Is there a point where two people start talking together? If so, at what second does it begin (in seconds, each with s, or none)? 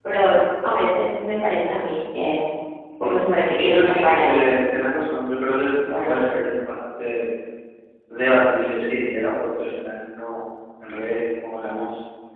3.0 s